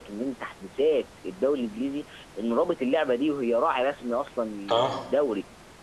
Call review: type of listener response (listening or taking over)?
listening